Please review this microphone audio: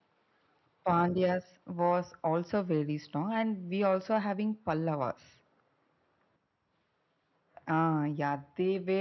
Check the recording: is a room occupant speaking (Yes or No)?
No